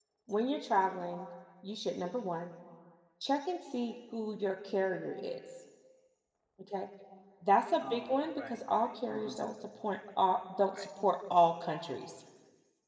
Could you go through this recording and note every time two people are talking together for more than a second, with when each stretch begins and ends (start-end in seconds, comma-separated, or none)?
7.8-9.5